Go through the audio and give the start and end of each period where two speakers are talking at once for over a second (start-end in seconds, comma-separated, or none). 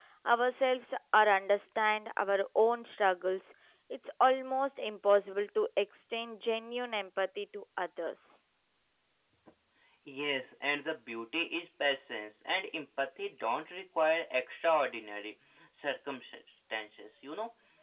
none